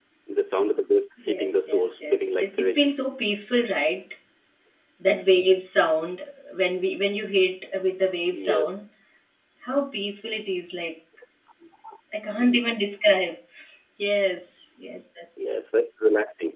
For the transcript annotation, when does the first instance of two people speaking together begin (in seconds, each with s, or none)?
1.3 s